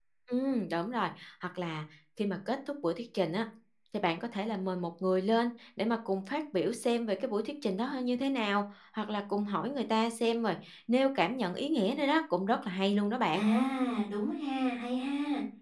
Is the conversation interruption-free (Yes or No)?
Yes